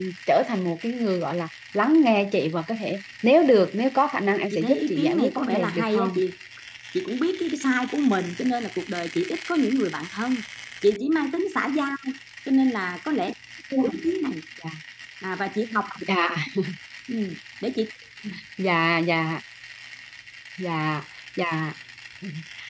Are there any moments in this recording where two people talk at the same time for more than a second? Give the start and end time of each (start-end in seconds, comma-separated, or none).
4.5-6.1